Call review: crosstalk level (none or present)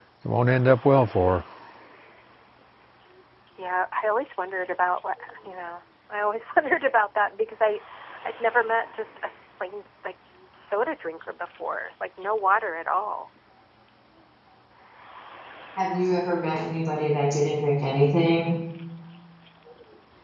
none